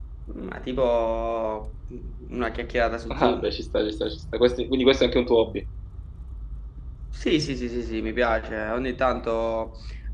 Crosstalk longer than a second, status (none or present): none